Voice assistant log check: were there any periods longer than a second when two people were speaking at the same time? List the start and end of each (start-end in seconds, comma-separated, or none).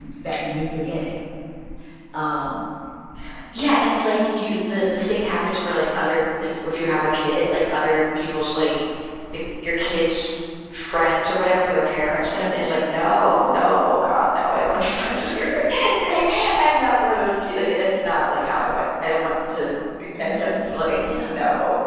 none